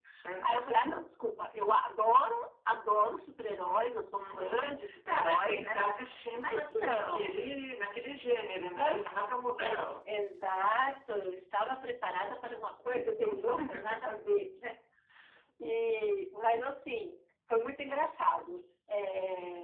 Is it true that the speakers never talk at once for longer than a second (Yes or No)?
No